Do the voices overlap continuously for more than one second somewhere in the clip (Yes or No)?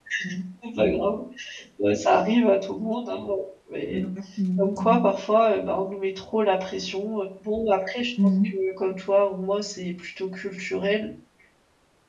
No